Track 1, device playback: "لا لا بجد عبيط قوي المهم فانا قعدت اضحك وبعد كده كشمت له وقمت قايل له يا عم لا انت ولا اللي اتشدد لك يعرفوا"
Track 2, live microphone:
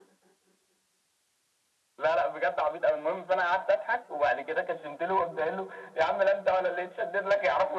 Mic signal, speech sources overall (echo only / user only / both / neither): echo only